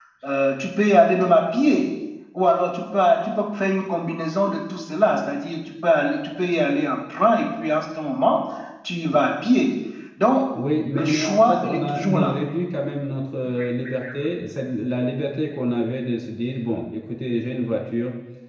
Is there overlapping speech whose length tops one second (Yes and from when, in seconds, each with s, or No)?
Yes, from 10.9 s